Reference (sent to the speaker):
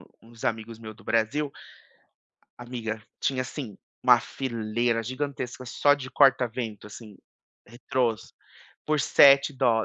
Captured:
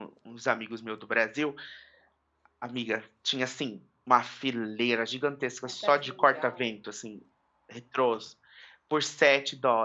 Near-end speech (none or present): present